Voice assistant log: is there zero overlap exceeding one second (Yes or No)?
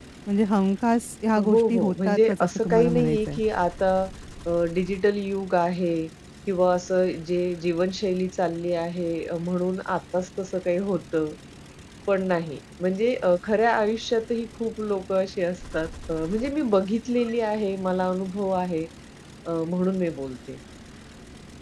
No